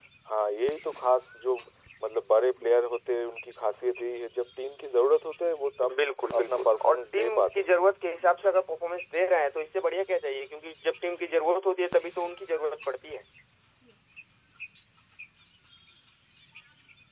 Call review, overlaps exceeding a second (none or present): present